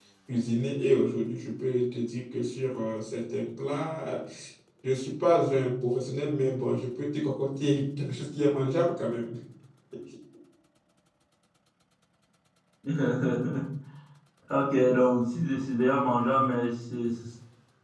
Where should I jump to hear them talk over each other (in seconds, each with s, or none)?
none